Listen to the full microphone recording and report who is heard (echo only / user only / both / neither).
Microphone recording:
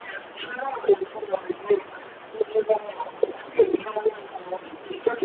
echo only